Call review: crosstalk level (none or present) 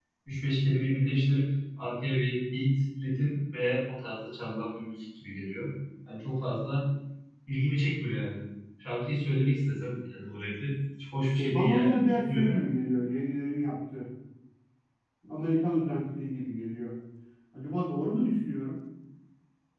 present